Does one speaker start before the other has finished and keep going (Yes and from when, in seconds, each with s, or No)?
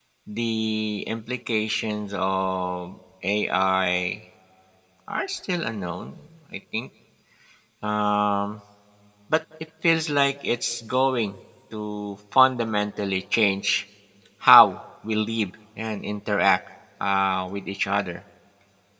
No